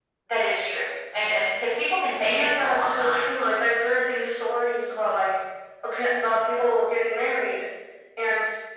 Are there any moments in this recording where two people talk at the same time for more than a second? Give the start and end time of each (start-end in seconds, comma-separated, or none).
2.2-3.8